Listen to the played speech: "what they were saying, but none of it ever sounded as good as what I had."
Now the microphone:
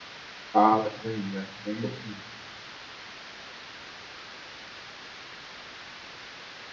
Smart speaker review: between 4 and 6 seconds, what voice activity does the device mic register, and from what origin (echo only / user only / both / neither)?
neither